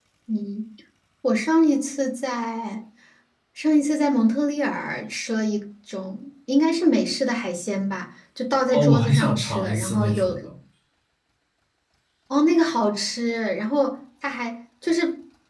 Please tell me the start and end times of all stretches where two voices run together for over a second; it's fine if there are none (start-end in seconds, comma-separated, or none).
8.7-10.3